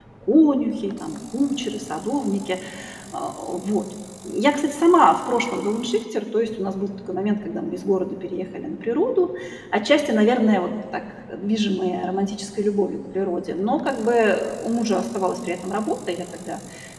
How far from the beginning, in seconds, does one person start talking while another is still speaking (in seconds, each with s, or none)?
none